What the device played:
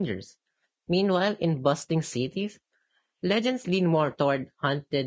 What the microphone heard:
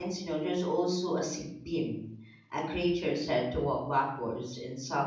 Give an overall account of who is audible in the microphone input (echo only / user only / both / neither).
user only